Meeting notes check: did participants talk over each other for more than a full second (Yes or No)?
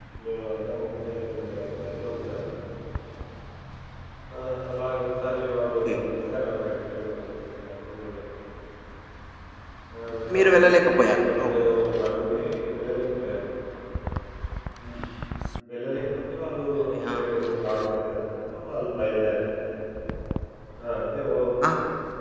Yes